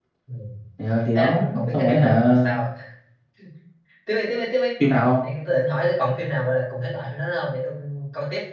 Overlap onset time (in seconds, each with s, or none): 1.2 s